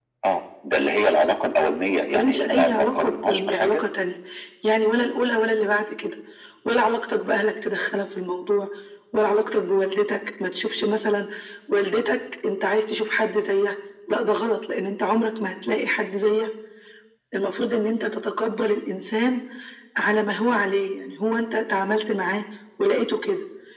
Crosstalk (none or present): present